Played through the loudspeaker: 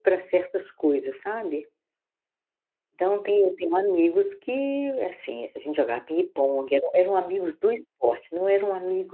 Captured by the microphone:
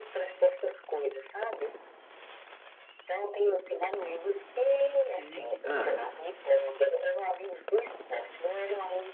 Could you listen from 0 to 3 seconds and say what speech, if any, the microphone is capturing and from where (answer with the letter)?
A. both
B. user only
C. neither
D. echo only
D